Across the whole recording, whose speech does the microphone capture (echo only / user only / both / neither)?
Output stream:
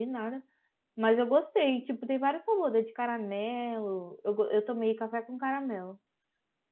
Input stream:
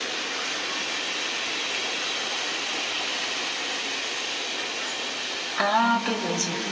user only